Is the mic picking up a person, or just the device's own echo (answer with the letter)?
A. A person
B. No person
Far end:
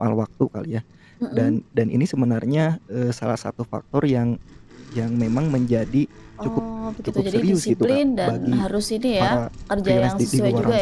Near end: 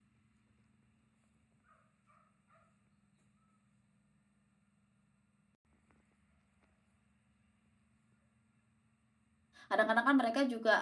A